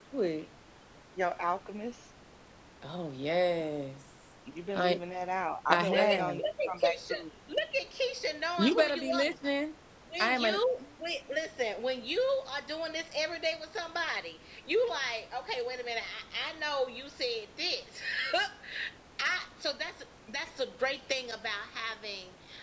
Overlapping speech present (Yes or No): Yes